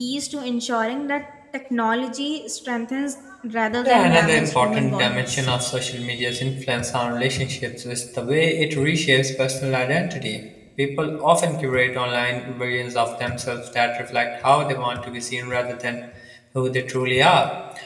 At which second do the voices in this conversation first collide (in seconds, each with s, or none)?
3.8 s